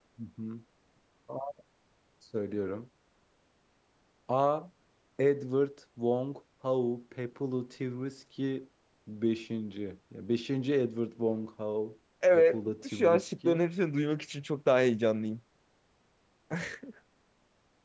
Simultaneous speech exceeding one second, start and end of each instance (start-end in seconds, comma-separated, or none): 12.3-13.6